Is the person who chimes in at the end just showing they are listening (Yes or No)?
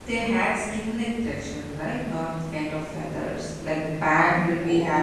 Yes